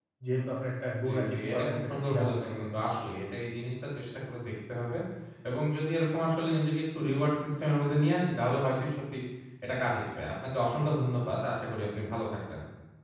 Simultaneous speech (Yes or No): Yes